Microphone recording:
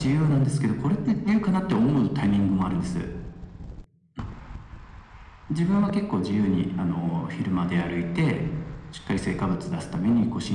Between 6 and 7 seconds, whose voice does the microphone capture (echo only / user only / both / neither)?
echo only